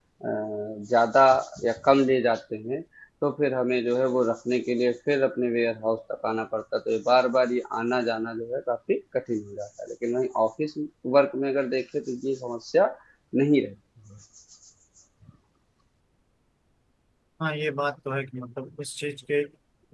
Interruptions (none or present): none